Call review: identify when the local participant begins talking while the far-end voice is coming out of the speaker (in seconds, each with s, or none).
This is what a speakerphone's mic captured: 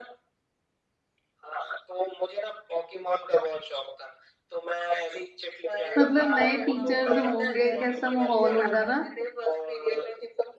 6.0 s